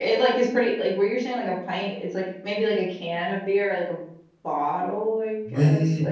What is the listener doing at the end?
taking over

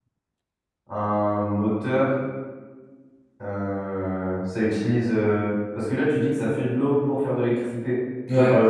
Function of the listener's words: listening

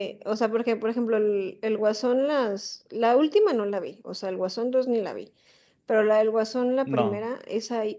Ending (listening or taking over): listening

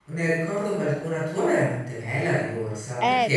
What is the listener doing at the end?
taking over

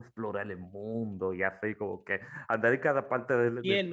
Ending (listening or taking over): taking over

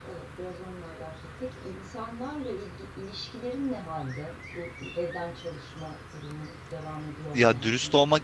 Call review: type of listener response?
taking over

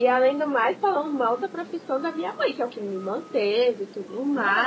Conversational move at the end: listening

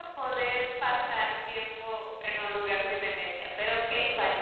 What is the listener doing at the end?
taking over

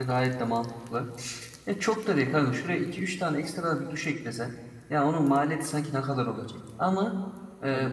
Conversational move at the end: listening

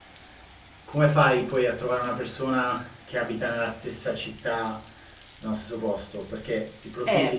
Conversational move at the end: taking over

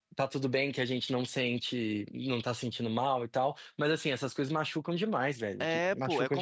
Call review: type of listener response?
taking over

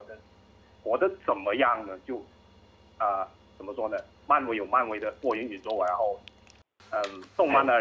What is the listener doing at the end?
listening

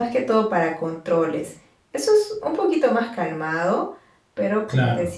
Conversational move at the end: listening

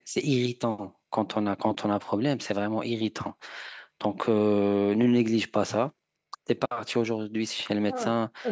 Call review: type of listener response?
taking over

